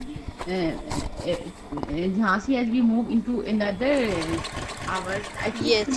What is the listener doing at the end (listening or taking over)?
taking over